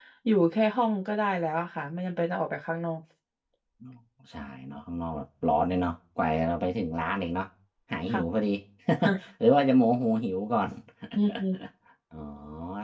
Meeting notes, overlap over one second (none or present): none